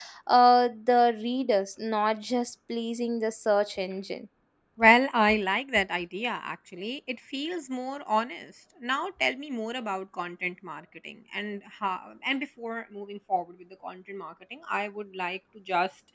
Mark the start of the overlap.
none

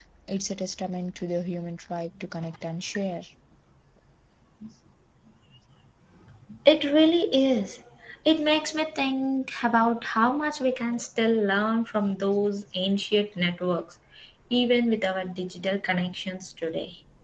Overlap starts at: none

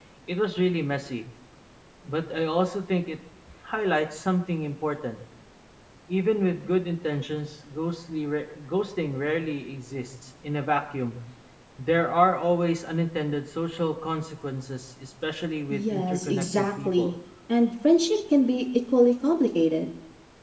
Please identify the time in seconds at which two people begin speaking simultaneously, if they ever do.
15.7 s

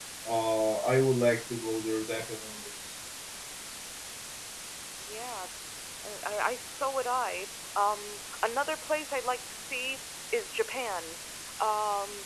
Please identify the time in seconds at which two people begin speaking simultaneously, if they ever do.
none

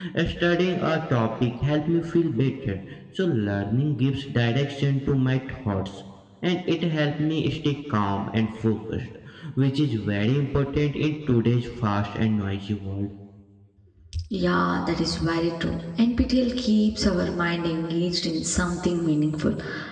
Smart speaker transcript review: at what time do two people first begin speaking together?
none

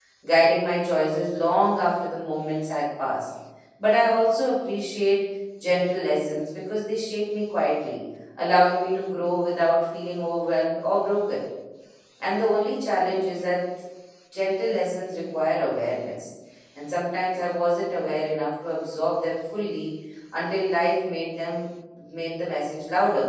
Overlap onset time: none

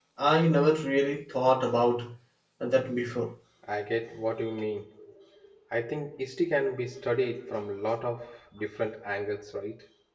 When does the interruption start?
none

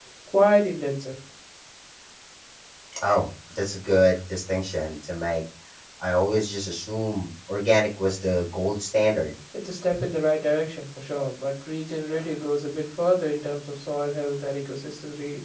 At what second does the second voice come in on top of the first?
none

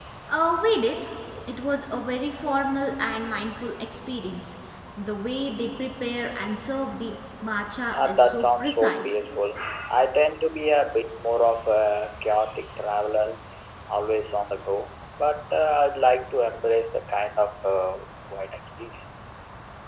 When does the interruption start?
7.9 s

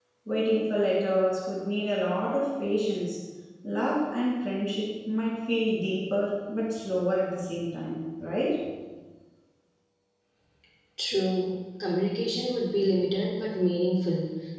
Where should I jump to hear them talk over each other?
none

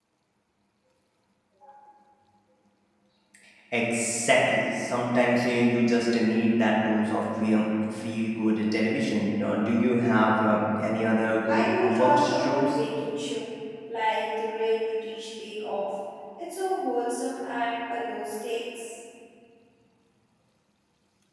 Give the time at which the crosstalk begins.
11.5 s

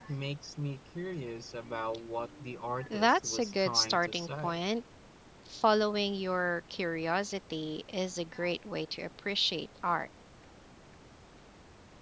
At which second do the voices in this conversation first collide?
2.9 s

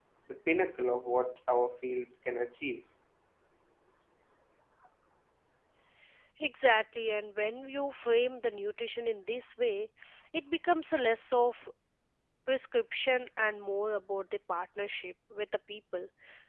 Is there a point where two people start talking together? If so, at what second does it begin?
none

